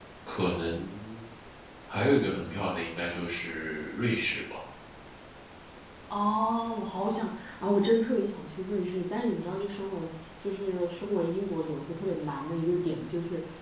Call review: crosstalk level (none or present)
none